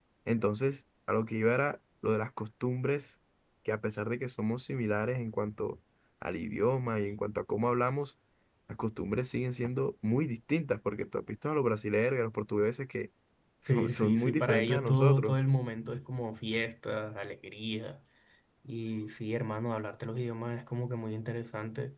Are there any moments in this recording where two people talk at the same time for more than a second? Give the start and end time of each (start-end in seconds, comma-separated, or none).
13.7-15.4